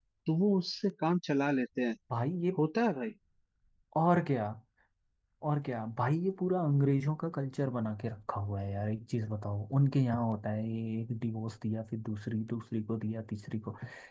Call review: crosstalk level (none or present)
none